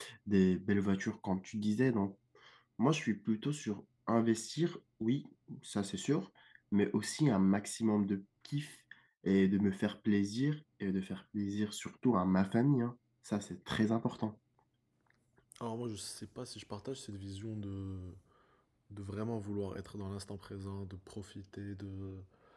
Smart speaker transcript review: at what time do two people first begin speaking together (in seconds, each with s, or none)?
none